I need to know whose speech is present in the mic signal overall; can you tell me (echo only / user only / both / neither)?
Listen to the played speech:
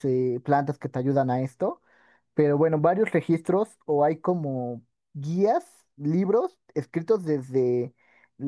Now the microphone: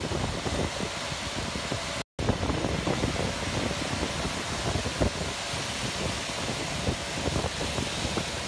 neither